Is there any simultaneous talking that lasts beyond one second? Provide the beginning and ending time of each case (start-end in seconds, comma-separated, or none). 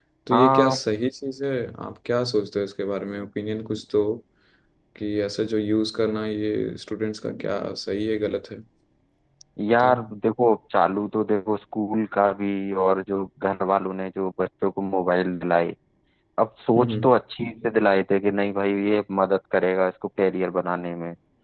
none